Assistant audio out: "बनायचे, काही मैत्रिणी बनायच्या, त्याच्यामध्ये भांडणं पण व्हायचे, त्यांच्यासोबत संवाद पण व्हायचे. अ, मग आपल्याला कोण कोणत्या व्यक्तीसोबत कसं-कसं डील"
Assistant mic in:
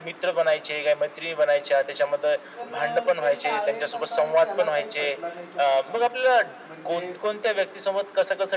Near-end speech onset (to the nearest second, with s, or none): 3 s